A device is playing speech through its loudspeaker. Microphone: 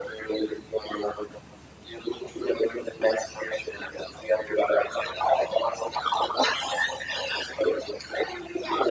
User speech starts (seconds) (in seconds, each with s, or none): none